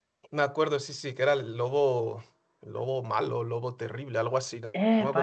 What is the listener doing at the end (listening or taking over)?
taking over